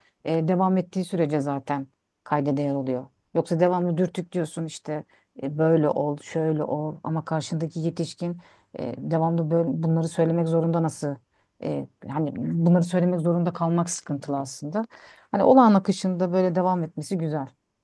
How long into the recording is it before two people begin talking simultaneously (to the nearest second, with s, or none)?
none